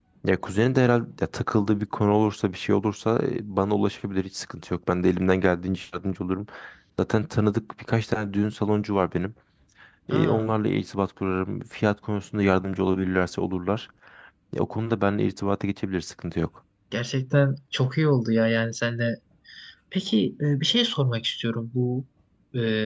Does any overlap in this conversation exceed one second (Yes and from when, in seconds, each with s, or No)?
No